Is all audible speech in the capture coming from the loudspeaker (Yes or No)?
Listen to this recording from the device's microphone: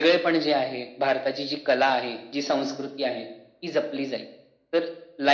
Yes